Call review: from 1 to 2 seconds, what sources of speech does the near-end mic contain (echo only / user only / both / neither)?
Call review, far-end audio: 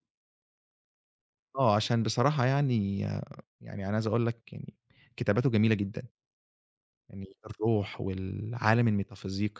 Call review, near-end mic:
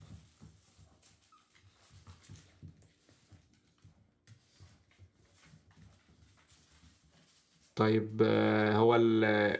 neither